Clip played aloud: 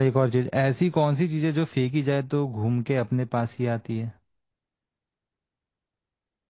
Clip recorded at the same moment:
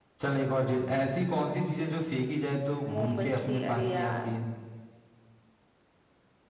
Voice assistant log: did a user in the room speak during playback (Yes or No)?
Yes